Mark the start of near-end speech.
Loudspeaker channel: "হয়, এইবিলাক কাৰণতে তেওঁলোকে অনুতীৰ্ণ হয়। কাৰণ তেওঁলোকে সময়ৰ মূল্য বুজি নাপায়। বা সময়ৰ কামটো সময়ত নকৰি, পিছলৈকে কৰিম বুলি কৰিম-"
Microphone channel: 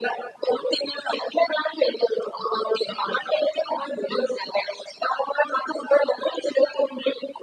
none

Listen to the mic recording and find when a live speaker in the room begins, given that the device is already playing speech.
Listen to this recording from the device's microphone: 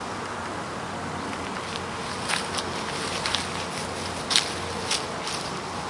none

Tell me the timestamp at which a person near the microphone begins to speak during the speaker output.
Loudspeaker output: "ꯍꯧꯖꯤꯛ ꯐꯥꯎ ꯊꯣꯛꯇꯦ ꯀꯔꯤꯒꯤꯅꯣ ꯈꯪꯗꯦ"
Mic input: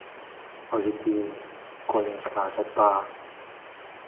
0.7 s

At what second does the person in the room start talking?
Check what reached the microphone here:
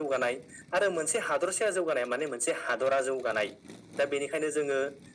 none

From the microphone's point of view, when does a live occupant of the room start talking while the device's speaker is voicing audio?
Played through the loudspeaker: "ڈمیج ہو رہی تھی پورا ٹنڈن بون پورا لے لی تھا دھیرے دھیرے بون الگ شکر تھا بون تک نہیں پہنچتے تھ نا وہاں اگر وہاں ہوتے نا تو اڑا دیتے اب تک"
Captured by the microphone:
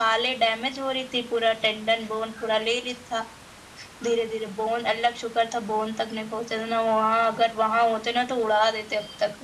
none

